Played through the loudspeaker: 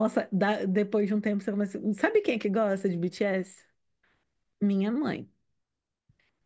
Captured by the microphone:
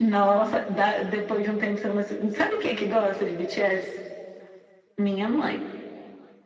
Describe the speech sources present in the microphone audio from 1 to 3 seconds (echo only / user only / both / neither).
echo only